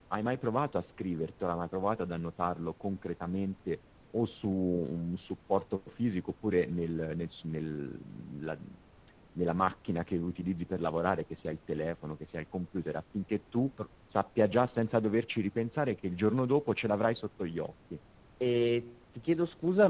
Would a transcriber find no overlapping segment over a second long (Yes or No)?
Yes